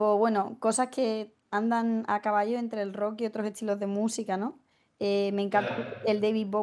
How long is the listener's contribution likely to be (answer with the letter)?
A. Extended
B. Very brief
B